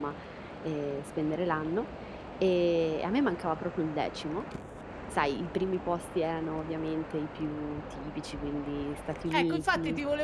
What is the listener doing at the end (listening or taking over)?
taking over